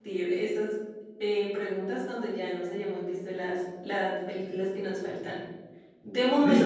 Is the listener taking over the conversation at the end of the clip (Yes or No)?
No